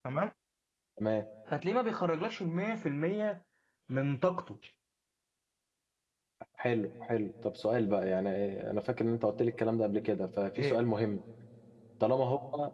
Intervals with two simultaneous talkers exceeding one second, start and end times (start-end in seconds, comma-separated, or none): none